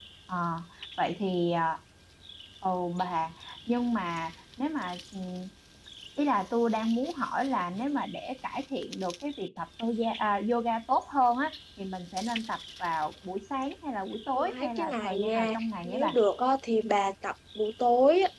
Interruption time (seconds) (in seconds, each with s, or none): 14.4 s